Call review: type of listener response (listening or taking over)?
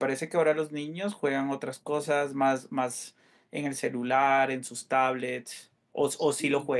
taking over